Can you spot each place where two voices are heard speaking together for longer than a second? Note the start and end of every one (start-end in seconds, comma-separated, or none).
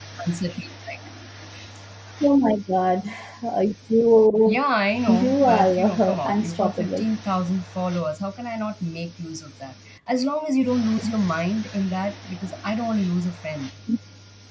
5.1-7.0